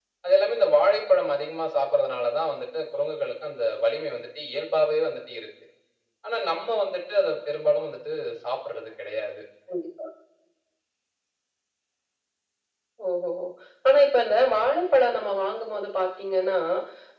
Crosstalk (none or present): none